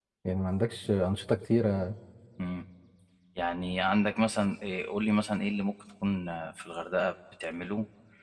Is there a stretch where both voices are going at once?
No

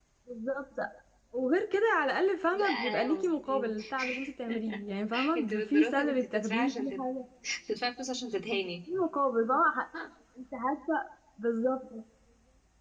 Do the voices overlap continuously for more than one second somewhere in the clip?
Yes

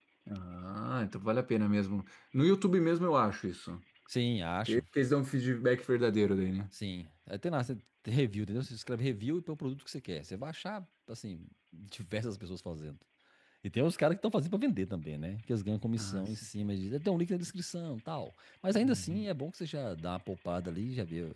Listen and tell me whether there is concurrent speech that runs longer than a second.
No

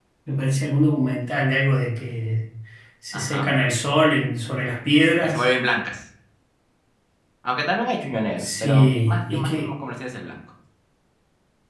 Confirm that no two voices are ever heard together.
No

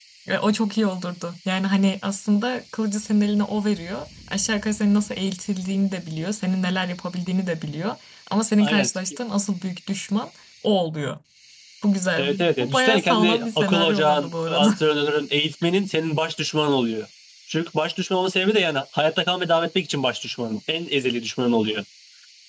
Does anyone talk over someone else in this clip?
Yes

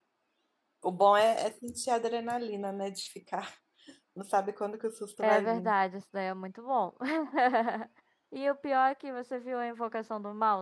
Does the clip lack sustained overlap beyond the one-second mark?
Yes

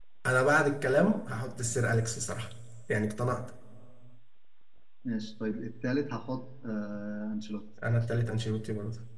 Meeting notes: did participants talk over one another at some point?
No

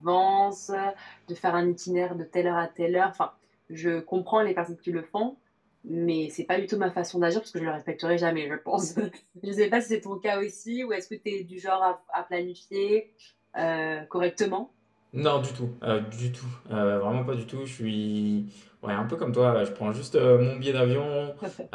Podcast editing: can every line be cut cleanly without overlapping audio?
Yes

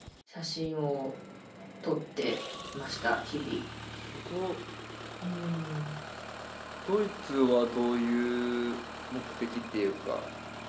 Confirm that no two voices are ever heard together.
Yes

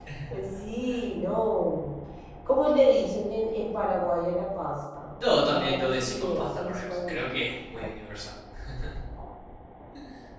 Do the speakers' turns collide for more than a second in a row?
Yes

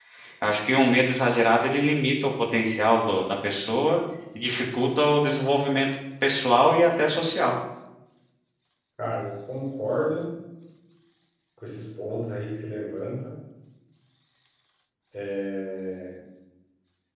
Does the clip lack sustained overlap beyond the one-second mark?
Yes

